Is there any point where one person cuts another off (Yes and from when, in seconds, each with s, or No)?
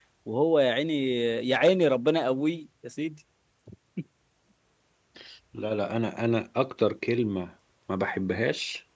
No